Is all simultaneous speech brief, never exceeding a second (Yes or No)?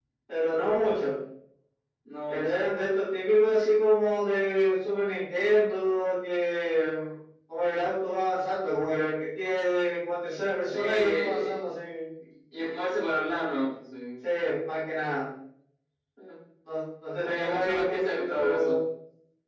No